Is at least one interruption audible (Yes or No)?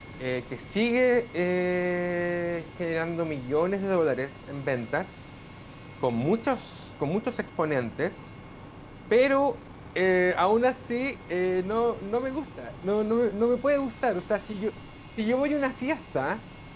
No